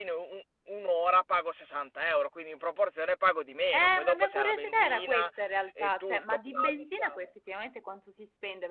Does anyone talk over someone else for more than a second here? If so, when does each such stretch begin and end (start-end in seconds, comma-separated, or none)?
3.7-5.3, 5.8-7.2